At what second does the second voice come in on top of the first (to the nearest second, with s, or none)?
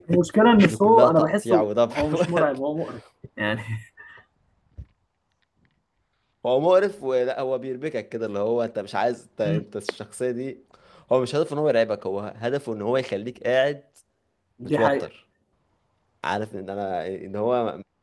1 s